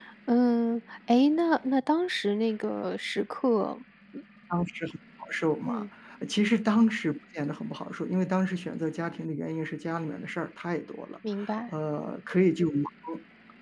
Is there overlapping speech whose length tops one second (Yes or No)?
No